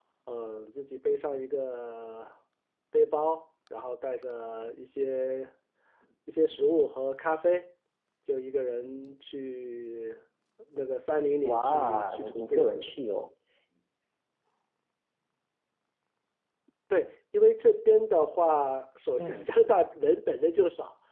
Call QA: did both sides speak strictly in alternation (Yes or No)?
No